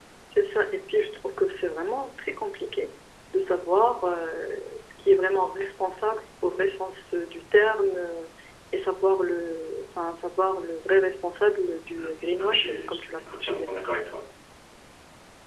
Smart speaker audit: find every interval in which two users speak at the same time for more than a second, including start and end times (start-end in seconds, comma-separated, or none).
12.0-13.7